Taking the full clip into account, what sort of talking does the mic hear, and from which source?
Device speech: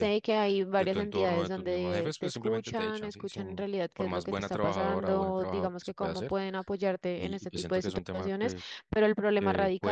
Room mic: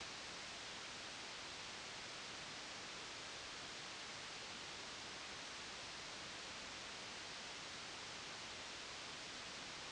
neither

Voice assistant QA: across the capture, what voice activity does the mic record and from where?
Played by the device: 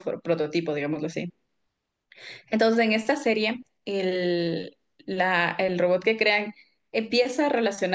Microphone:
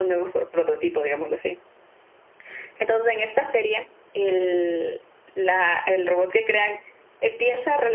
echo only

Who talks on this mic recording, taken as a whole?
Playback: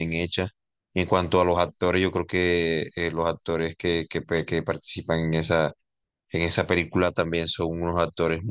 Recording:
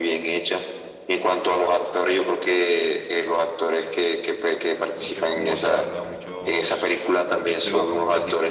both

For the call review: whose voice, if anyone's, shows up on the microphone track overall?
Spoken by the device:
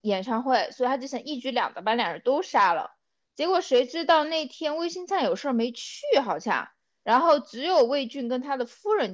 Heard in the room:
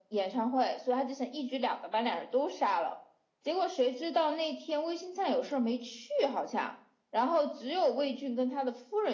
echo only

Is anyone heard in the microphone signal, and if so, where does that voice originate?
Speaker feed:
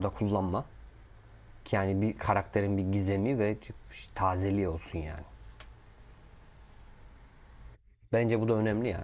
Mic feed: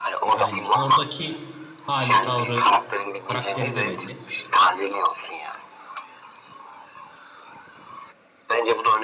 both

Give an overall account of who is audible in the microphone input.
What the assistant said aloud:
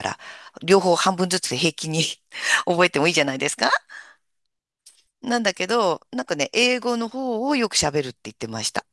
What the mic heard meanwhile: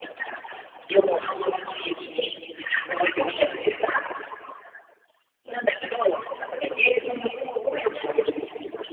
echo only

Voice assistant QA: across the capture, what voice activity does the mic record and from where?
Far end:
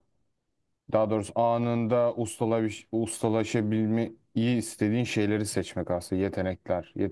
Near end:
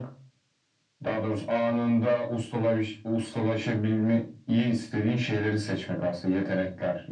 echo only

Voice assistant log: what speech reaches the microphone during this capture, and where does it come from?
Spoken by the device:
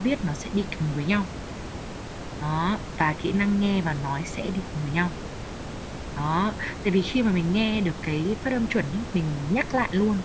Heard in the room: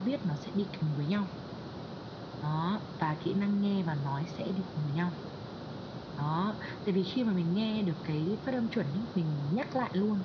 echo only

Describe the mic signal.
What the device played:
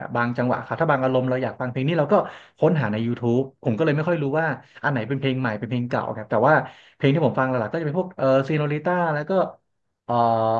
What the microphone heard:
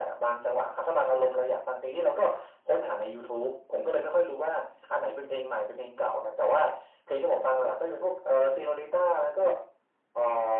echo only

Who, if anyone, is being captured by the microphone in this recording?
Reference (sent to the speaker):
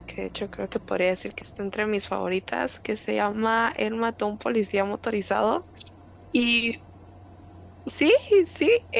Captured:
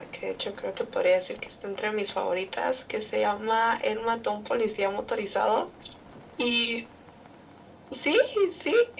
echo only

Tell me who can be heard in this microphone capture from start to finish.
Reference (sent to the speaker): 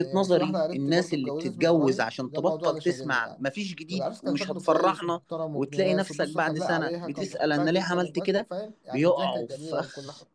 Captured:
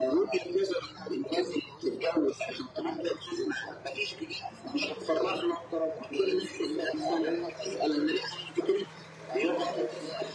echo only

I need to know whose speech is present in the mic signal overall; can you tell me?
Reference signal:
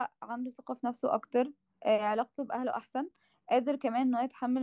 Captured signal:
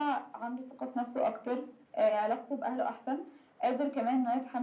echo only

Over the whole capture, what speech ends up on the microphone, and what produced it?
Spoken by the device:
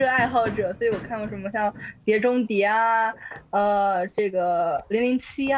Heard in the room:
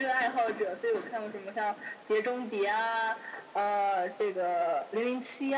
echo only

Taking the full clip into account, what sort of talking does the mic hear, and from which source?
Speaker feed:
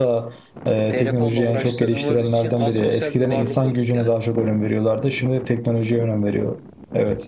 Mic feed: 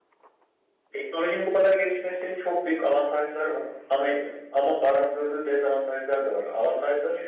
user only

